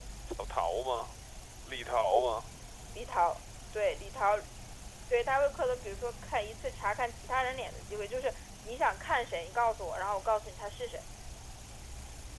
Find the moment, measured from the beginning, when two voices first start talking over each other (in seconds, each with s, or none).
none